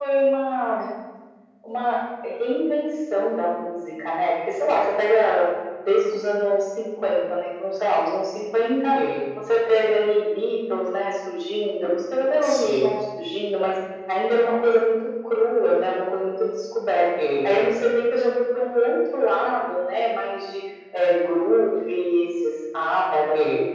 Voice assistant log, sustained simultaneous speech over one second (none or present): none